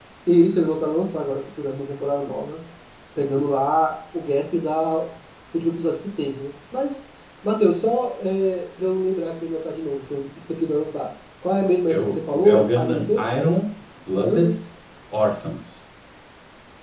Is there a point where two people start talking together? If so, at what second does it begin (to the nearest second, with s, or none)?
12 s